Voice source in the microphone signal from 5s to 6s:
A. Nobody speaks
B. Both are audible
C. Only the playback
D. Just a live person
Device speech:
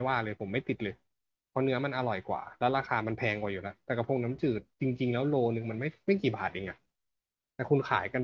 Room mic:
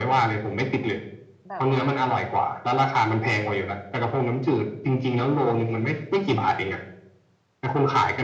C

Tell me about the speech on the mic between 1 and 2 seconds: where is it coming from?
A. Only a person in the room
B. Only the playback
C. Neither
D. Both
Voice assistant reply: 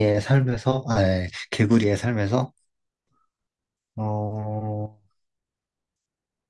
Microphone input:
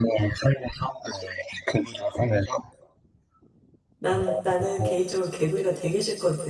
B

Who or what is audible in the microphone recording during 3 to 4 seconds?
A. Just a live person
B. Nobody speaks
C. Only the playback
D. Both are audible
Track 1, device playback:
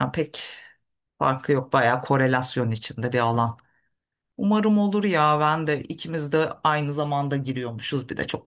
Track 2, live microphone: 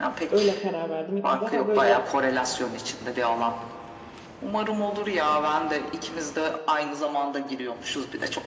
C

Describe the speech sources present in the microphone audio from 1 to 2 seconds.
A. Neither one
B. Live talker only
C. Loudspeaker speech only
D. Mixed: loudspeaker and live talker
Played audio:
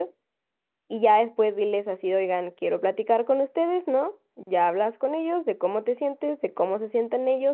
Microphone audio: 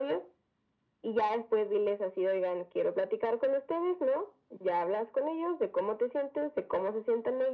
C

